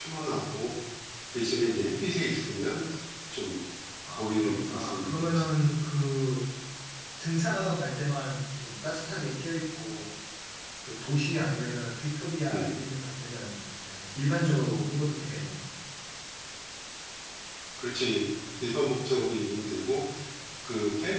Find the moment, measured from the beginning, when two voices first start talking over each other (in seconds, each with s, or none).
4.1 s